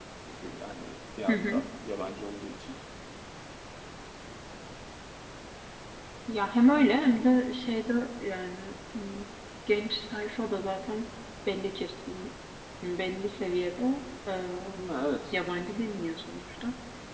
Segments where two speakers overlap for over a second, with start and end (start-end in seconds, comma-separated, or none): none